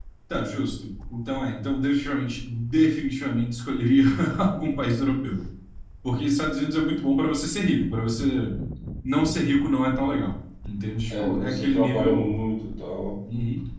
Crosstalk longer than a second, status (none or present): present